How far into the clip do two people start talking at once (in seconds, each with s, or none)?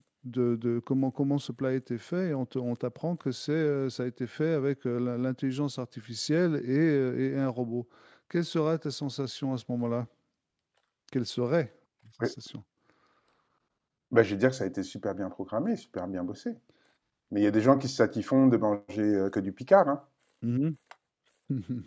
none